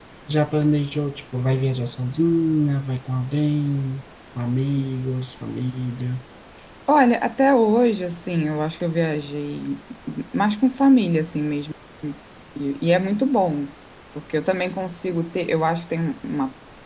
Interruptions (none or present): none